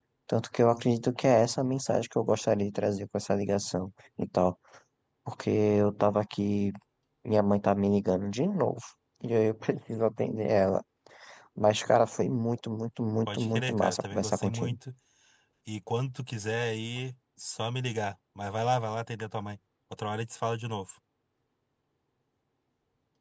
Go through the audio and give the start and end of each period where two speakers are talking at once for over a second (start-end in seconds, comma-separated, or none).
13.3-14.7